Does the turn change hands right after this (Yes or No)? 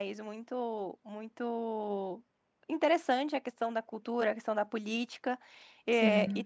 No